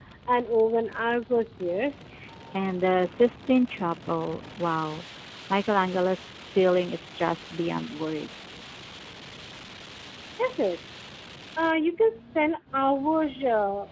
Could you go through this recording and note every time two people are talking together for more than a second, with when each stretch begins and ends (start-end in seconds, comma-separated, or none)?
none